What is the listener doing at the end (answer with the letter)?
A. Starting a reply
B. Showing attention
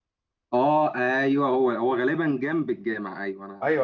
A